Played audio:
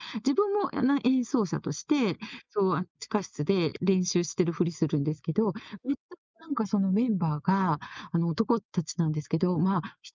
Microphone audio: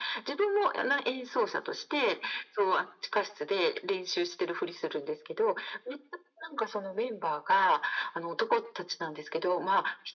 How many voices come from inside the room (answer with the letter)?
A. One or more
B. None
B